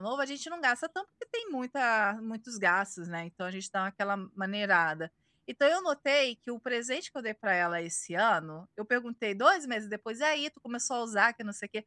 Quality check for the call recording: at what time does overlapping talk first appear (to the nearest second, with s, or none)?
none